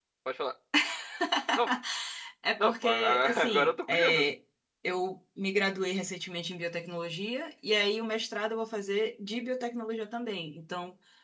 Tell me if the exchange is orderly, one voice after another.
No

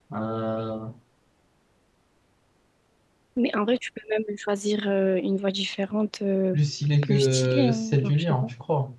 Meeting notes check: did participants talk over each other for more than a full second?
Yes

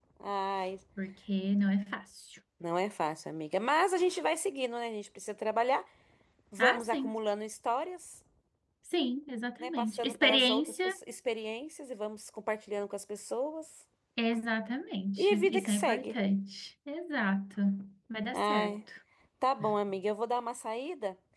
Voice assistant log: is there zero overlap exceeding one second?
No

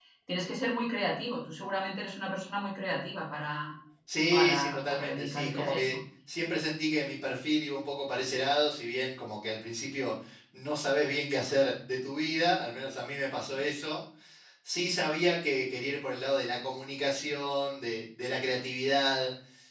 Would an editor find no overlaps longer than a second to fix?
No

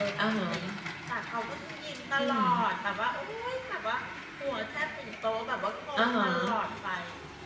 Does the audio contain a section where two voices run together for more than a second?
No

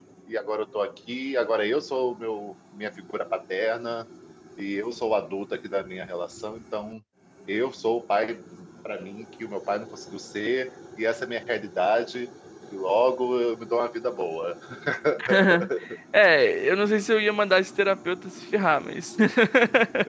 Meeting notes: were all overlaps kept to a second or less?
Yes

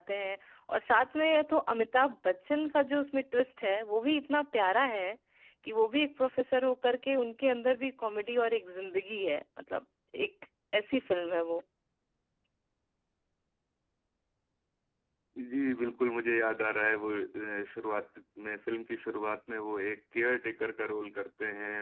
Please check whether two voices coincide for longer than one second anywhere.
No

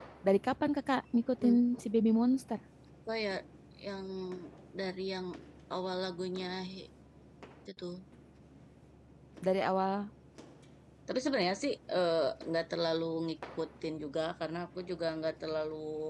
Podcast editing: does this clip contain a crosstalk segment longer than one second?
No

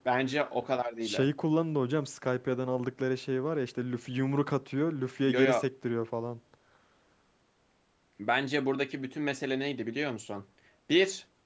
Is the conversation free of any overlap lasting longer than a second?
Yes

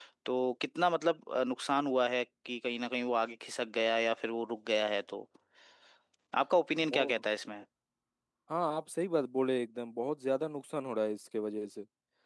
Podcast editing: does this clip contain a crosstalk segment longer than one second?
No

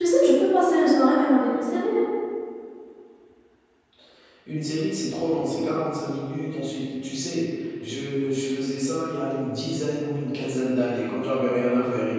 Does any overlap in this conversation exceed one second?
No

